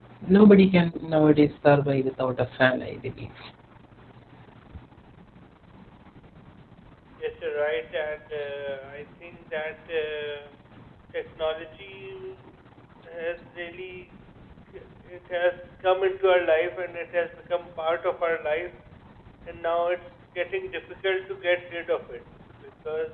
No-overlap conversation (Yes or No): Yes